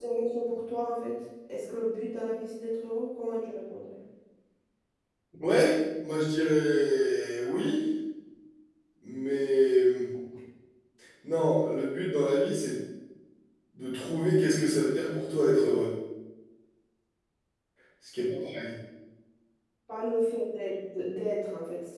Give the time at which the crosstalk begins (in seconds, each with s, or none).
none